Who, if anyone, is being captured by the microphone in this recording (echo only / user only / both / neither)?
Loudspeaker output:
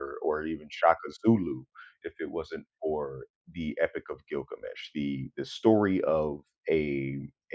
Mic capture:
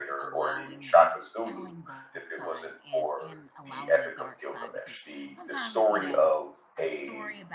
both